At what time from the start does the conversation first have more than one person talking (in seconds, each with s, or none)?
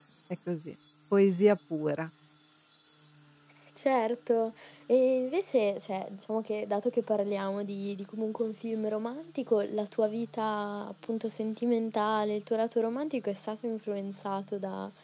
none